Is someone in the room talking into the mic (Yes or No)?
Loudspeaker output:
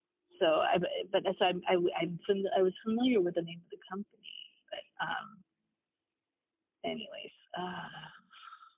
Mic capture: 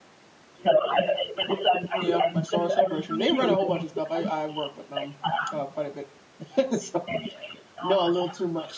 Yes